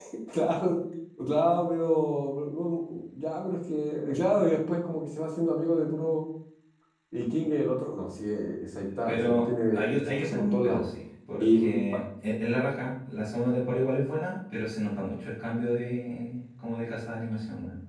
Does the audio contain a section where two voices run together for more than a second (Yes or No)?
Yes